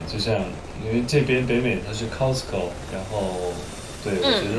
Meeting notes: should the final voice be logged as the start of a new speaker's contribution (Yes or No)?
No